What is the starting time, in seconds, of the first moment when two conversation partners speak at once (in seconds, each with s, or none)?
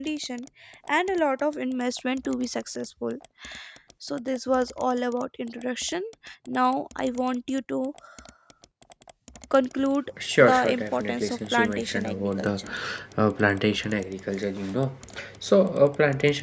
10.4 s